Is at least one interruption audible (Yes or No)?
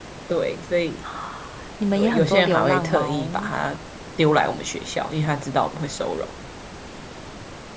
Yes